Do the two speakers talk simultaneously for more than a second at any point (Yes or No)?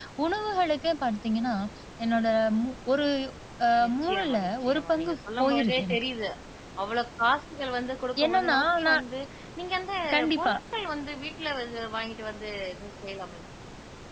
Yes